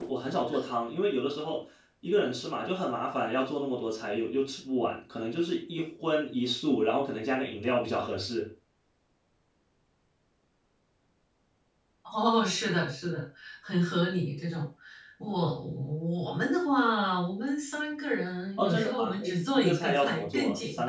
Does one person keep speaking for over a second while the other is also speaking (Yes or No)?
Yes